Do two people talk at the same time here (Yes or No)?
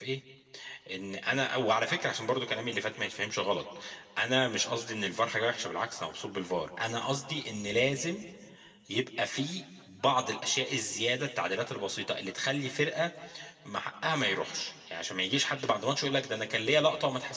No